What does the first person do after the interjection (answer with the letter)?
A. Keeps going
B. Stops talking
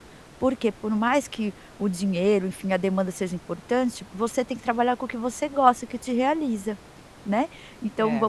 B